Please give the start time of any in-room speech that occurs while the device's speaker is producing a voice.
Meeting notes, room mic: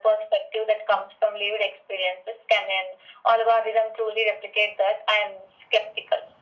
none

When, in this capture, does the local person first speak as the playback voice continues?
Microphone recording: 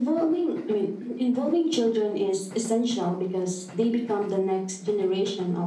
none

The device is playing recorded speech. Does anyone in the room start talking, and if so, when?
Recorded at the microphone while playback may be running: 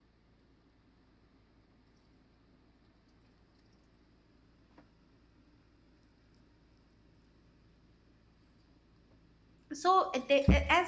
10 s

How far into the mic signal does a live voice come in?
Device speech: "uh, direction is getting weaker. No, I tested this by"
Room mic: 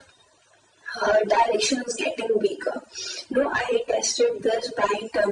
none

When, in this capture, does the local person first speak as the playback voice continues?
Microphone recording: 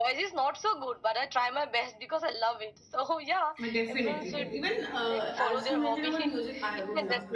4 s

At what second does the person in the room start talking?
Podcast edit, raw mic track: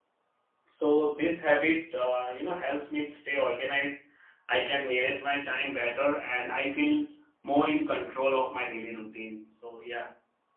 1 s

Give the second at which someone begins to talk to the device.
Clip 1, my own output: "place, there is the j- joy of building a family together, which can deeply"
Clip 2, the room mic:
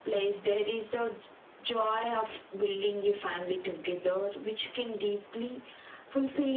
none

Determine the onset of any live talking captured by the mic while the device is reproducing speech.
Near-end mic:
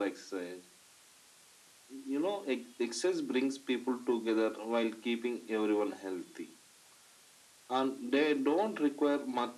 none

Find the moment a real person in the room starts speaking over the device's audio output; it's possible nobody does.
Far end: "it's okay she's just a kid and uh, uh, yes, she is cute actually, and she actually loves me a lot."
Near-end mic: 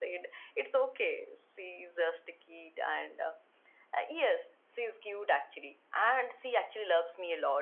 none

